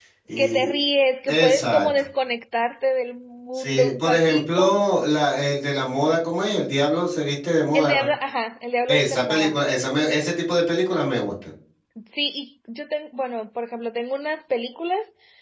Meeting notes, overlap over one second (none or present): present